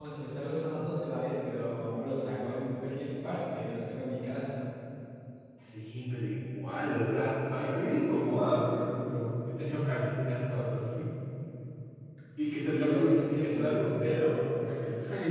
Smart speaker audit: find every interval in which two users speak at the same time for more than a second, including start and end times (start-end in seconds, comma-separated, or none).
12.4-13.8